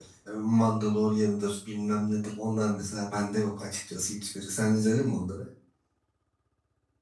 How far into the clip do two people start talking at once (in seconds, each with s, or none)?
none